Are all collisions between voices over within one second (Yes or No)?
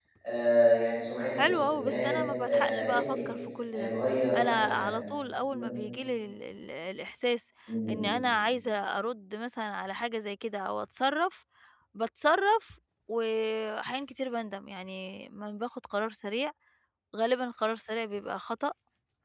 No